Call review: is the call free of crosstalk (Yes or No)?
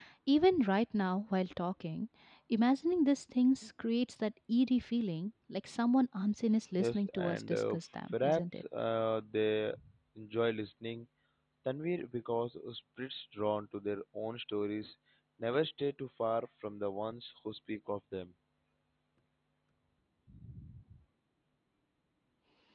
No